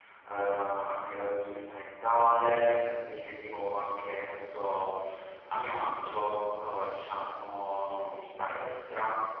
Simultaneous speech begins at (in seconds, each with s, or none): none